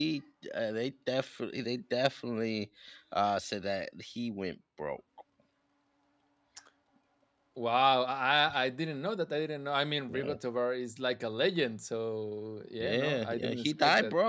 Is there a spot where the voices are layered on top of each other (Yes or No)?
Yes